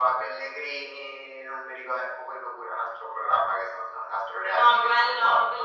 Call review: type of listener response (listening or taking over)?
taking over